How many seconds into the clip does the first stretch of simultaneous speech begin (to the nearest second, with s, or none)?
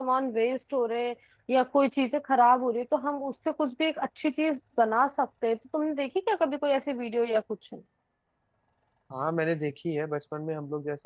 none